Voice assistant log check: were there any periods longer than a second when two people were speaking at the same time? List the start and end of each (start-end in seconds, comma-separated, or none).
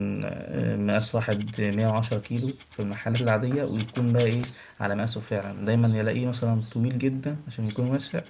none